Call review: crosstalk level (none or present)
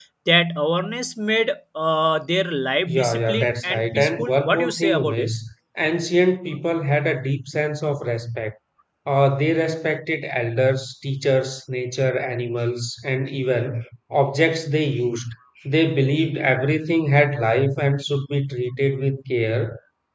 present